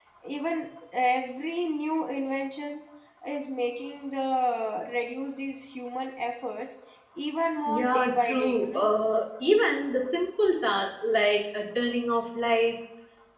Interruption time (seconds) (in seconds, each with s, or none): 7.7 s